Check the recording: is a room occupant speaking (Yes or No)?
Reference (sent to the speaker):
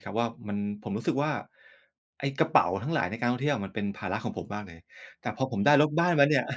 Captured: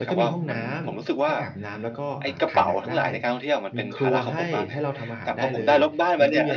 Yes